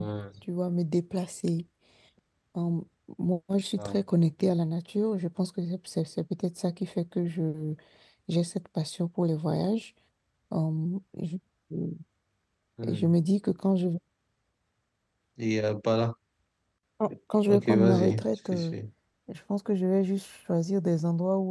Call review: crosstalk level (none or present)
present